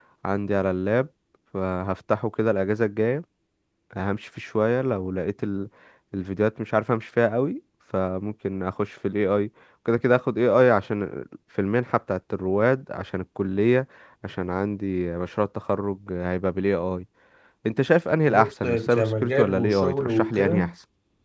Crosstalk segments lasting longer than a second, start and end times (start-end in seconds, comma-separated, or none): 18.3-20.7